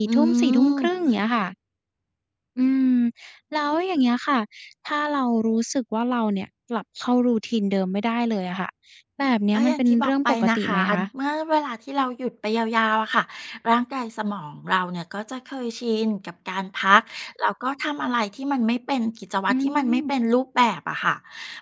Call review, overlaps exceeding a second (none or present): present